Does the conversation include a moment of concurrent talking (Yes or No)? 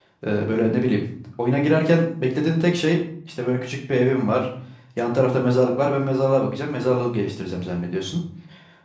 No